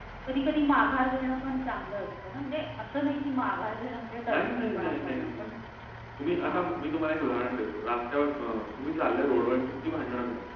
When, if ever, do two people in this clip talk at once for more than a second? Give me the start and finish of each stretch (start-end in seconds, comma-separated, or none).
4.3-5.5